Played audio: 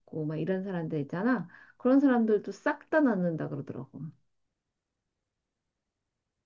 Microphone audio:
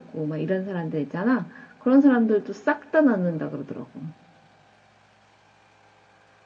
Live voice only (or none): none